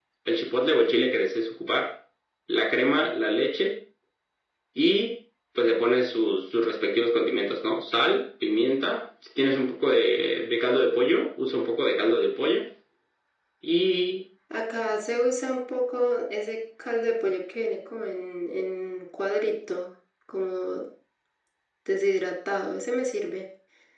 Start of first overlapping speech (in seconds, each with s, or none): none